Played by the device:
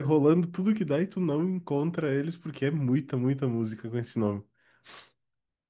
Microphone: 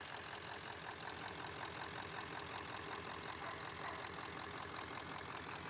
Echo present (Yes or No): No